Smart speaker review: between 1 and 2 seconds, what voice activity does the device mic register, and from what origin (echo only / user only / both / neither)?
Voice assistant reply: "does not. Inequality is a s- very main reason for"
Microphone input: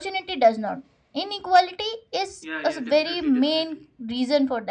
echo only